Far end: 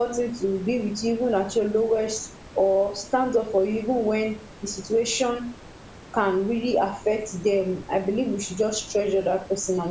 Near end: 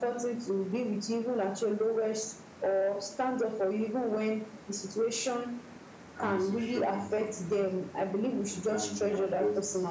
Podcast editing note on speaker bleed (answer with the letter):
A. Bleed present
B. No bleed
A